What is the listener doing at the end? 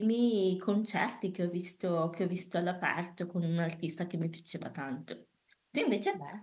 listening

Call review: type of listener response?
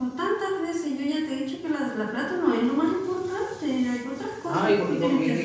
taking over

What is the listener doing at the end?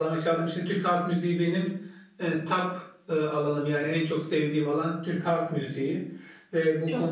listening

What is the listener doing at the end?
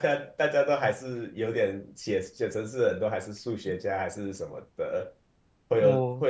listening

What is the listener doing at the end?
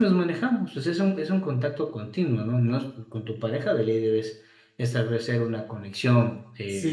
taking over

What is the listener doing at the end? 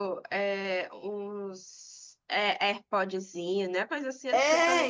taking over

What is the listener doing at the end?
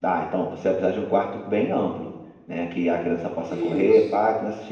listening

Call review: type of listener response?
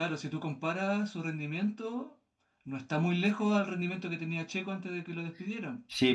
taking over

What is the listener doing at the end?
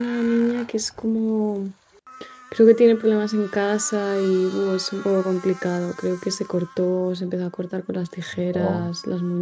listening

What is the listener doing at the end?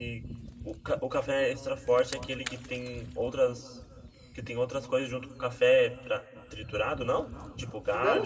taking over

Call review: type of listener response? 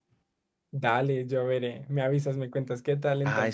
taking over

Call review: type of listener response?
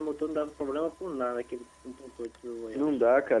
taking over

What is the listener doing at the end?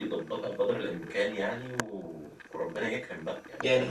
taking over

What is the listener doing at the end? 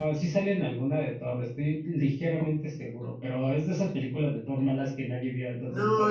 taking over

